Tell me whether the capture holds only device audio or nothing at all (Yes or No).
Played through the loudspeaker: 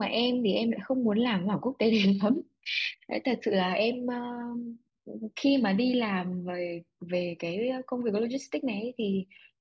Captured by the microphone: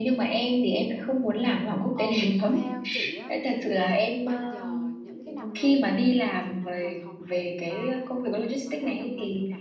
No